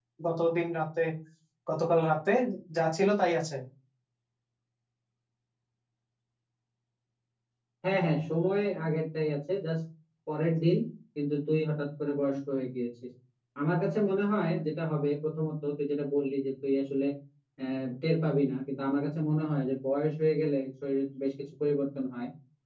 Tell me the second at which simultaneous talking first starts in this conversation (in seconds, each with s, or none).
none